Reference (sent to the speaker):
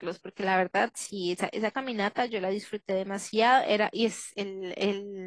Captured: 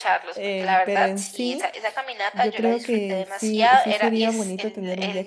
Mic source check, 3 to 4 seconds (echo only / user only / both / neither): both